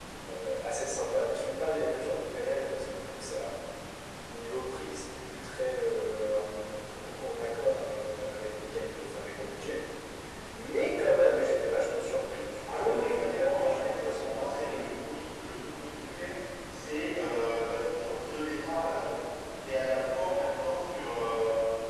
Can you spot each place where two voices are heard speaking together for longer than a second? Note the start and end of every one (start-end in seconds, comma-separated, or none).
12.8-15.0